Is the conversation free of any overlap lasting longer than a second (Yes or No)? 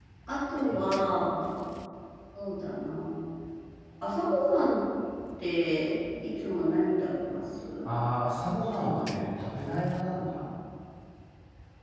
Yes